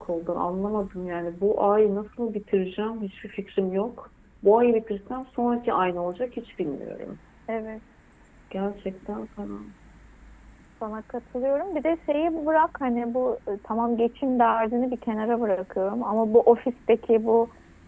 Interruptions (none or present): none